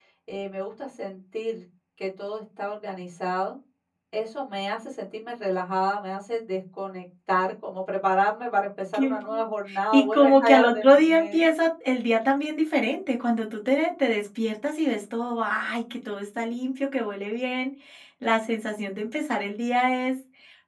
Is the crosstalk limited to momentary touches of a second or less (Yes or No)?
No